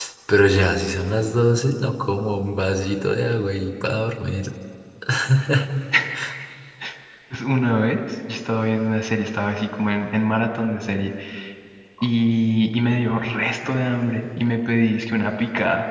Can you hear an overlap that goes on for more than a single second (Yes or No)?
No